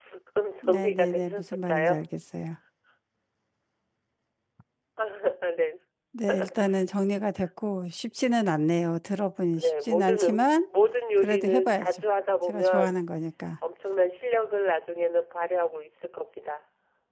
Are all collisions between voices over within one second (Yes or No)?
No